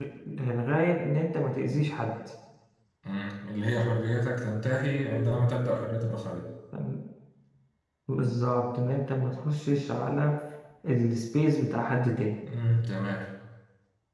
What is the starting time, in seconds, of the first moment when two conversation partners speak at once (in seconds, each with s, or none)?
none